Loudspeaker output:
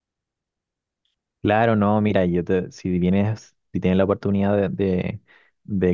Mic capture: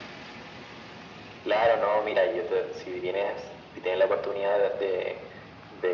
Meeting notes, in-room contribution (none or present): none